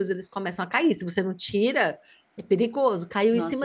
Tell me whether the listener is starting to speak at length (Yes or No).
No